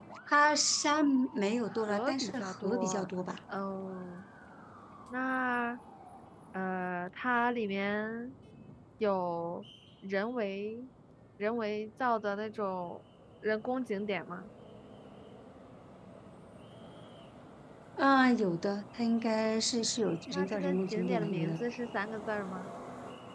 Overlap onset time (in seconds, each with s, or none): 1.7 s